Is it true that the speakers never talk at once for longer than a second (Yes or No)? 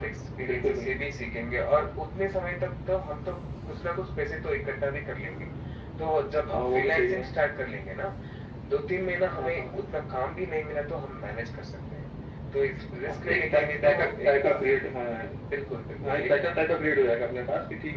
No